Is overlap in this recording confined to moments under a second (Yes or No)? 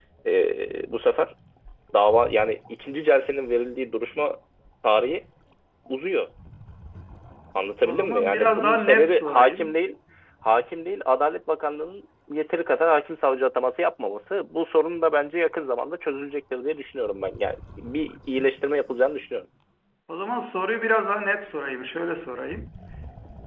No